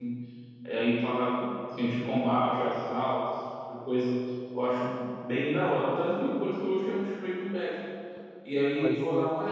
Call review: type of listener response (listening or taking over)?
taking over